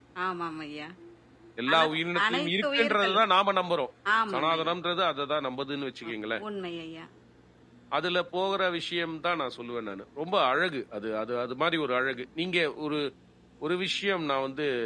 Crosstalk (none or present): present